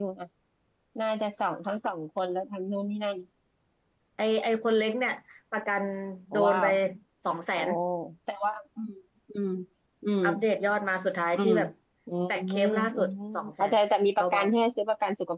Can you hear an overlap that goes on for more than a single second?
Yes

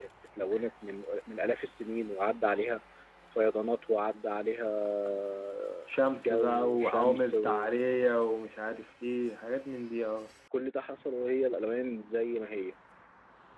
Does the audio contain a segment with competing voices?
Yes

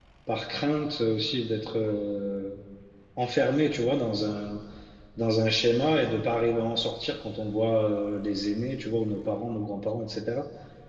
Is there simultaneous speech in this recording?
No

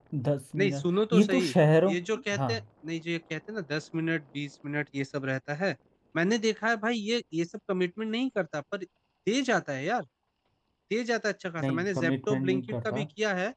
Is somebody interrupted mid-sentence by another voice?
Yes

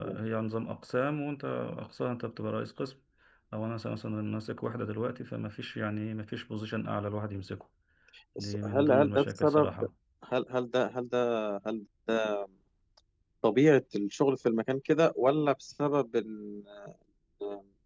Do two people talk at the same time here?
Yes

